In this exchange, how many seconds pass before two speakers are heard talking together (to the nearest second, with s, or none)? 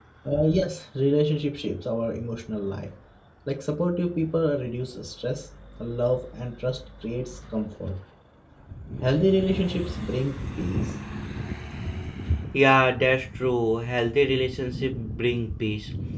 none